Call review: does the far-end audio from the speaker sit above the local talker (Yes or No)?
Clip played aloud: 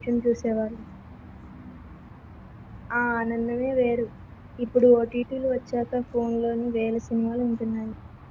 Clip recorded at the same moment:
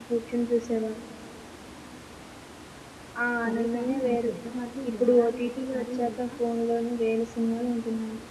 Yes